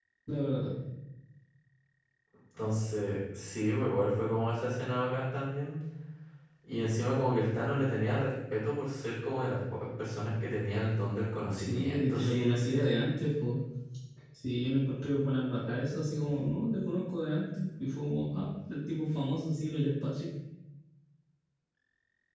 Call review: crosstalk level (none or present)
present